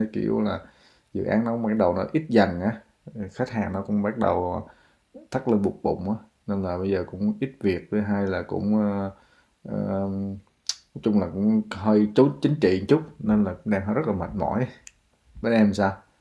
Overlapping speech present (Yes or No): No